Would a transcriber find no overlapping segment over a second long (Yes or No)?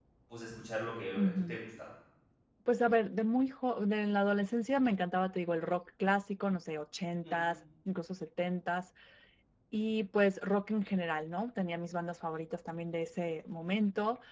Yes